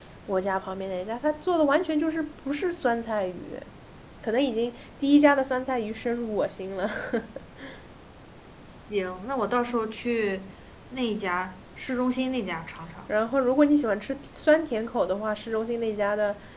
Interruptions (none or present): none